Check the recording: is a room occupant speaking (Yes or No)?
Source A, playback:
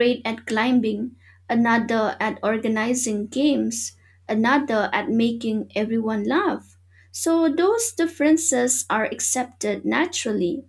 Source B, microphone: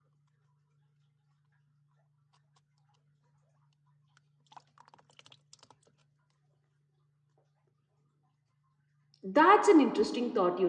Yes